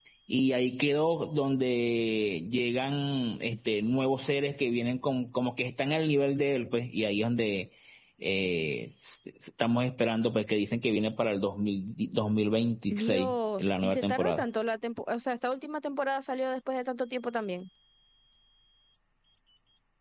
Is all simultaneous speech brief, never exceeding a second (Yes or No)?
No